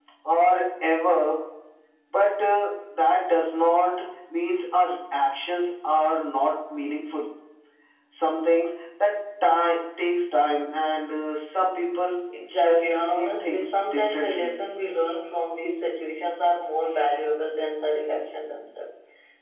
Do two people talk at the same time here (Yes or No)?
Yes